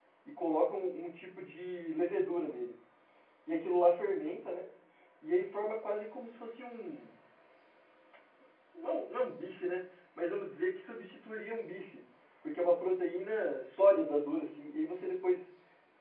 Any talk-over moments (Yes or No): No